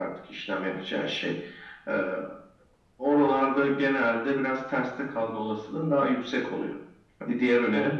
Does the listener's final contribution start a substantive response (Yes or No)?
No